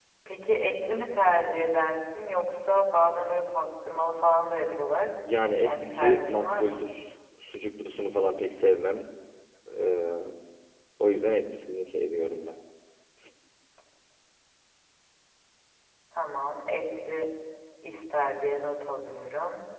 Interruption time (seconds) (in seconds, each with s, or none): 5.6 s